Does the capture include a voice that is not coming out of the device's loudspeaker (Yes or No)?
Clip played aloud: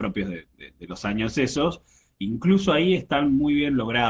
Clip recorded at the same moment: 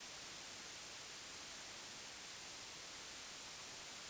No